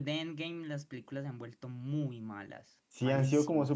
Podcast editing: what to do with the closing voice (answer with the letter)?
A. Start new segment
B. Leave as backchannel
A